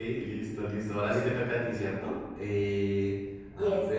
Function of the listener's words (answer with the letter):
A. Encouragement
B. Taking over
A